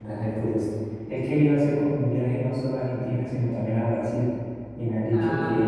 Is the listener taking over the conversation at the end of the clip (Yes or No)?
No